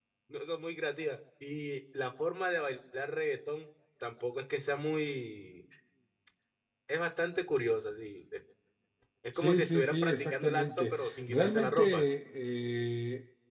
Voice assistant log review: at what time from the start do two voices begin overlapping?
9.3 s

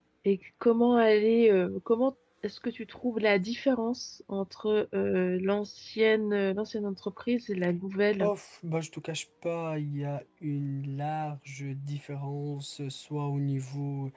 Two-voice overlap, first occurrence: none

